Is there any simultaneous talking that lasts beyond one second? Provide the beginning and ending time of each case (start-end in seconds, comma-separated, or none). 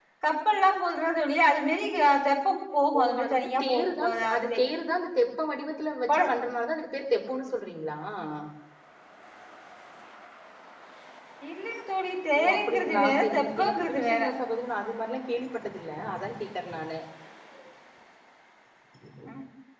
3.0-4.6, 12.4-14.2